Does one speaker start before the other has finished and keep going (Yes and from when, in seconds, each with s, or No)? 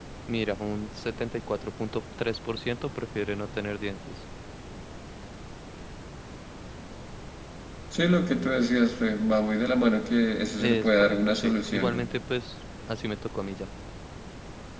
Yes, from 10.6 s